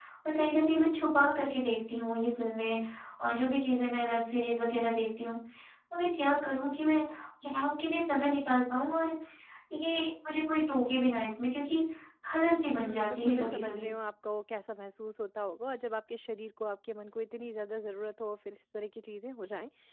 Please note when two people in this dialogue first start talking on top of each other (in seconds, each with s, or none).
12.7 s